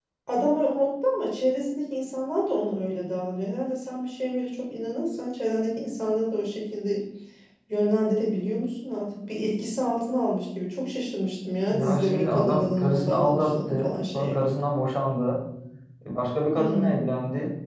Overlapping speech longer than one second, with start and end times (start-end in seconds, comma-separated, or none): 11.7-14.6